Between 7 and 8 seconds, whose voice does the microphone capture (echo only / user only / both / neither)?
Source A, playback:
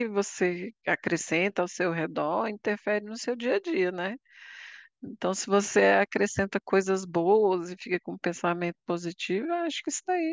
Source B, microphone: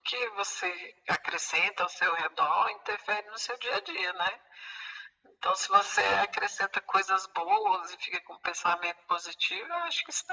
echo only